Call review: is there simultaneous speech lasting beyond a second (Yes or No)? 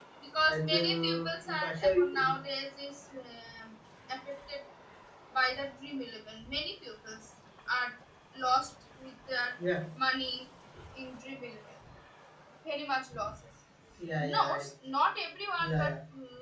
Yes